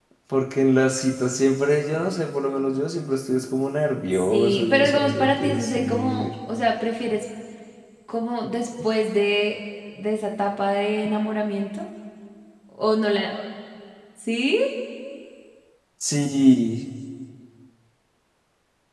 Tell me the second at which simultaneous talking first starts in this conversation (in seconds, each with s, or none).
4.1 s